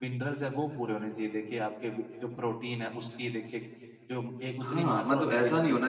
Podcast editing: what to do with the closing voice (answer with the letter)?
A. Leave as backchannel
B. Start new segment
B